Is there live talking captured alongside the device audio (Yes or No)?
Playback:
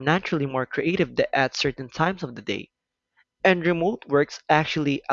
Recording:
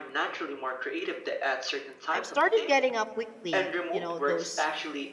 Yes